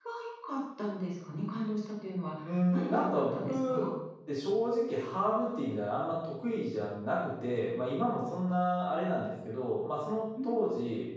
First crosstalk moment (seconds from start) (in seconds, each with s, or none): 2.4 s